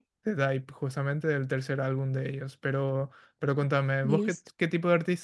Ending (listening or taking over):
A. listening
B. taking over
A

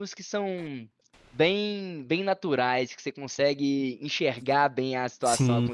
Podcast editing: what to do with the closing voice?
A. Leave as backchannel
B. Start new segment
A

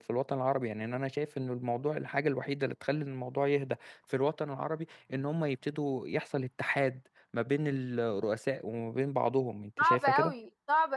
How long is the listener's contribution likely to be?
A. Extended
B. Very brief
A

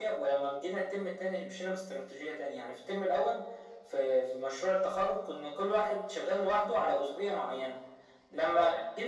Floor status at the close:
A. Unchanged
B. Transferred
A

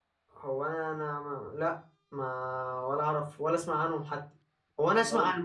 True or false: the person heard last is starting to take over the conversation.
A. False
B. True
A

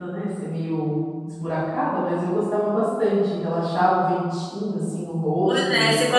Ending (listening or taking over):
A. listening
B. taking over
B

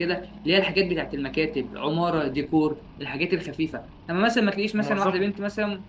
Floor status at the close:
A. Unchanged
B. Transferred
A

